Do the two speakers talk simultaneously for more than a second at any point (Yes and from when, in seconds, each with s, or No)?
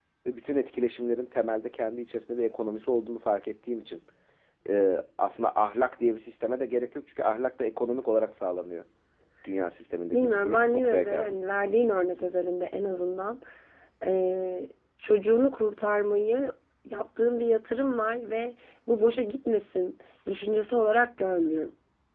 Yes, from 10.1 s